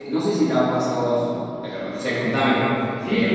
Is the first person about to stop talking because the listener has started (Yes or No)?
Yes